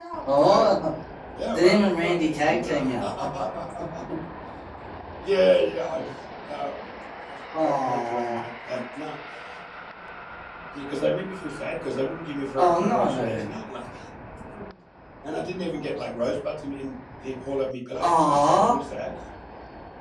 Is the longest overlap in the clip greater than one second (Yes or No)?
Yes